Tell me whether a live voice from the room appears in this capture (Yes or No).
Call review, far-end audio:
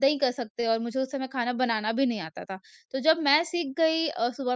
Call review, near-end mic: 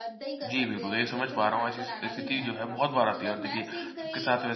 Yes